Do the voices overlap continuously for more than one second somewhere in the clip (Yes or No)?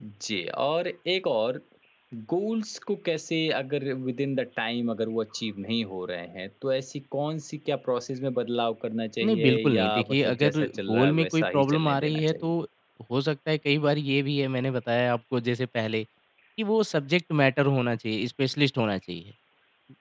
Yes